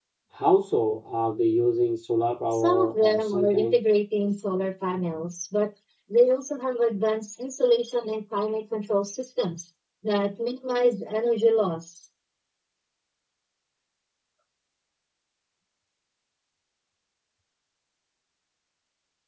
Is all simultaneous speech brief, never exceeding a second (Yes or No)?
No